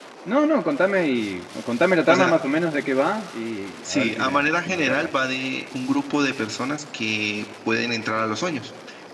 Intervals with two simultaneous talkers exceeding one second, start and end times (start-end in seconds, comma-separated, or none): 3.8-5.1